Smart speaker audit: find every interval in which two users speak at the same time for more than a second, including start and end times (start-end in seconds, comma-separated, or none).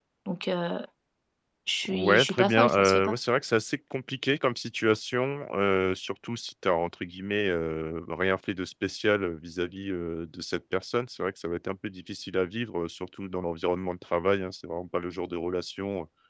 1.9-3.1